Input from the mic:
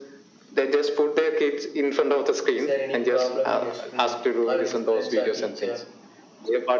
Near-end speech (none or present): present